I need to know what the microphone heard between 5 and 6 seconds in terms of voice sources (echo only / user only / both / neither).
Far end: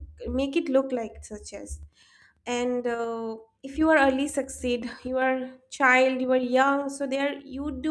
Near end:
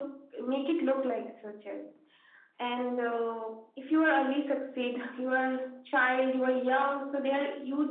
echo only